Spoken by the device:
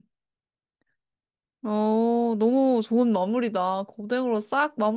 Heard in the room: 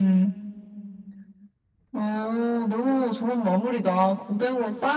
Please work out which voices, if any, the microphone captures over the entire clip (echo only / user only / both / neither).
echo only